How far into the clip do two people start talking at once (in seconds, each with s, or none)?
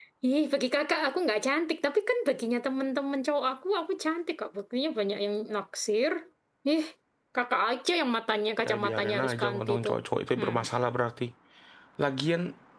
8.6 s